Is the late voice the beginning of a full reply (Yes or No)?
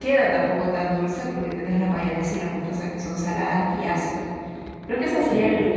No